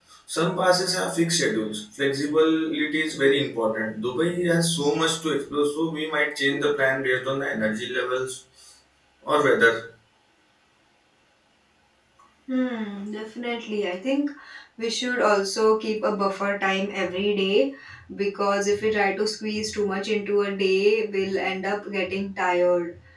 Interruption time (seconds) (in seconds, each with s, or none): none